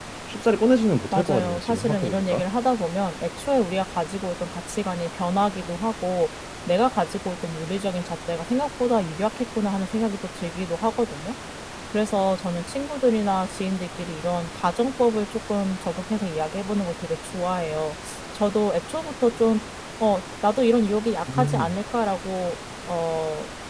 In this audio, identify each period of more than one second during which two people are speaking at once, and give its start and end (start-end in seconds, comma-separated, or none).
1.1-2.4